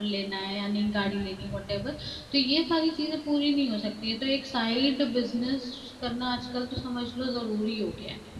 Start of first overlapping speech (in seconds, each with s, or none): none